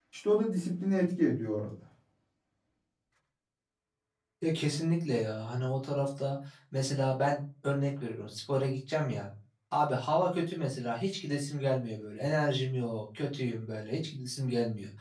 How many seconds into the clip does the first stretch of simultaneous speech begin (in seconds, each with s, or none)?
none